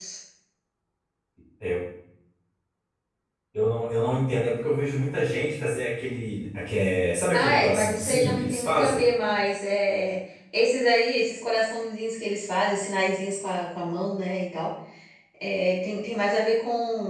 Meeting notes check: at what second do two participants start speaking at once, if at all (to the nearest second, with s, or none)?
7 s